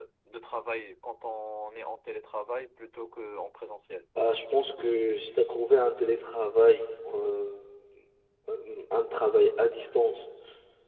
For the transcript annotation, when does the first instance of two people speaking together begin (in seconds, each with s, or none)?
none